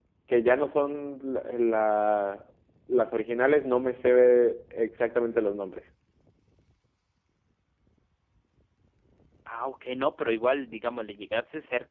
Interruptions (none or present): none